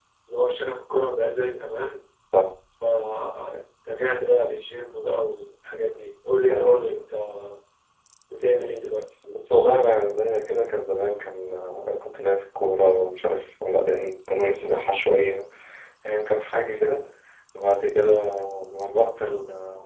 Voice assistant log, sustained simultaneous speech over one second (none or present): none